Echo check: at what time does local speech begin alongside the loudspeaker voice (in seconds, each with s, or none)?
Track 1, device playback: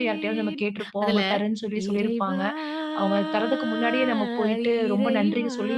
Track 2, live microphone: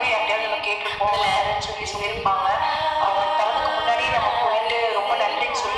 none